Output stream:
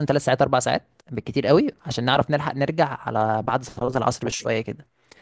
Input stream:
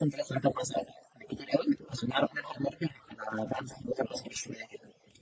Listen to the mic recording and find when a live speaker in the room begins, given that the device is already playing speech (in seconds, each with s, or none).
none